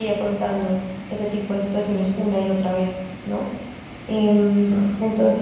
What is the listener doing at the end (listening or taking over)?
listening